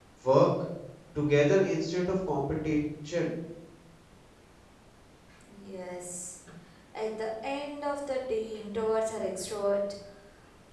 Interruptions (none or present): none